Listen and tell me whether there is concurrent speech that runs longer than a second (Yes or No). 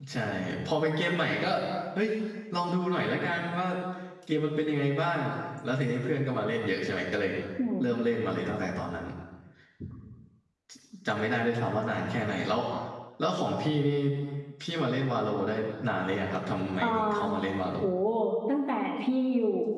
No